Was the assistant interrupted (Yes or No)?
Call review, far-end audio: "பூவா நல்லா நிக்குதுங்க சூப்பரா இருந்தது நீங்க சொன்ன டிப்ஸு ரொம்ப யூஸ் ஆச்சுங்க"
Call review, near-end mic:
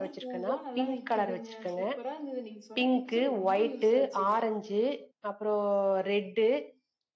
Yes